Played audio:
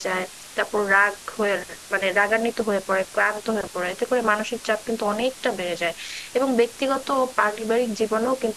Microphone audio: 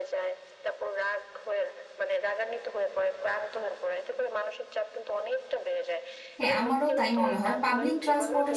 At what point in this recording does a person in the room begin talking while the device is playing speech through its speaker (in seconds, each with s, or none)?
6.4 s